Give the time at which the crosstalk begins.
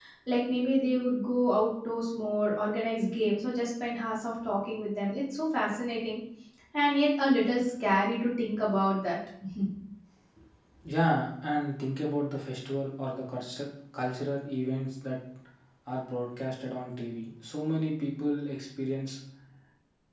none

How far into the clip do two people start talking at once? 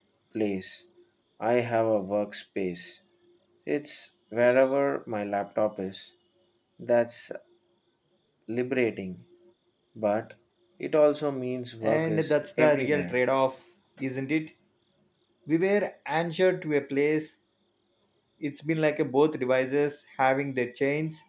11.8 s

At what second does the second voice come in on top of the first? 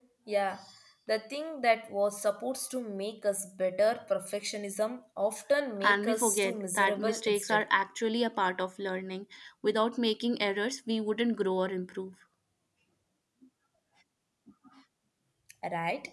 5.8 s

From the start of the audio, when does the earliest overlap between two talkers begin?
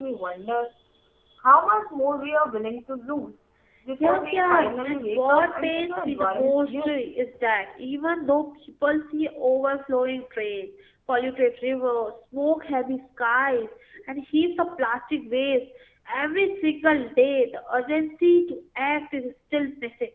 4.0 s

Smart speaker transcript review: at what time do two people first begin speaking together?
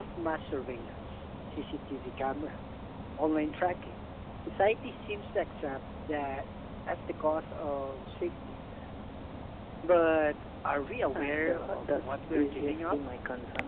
11.1 s

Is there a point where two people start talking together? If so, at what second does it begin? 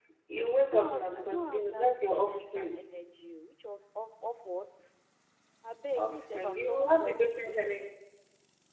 0.6 s

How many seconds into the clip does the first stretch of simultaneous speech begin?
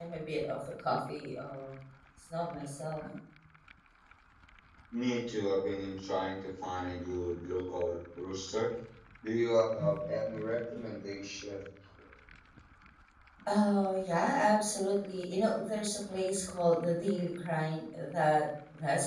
none

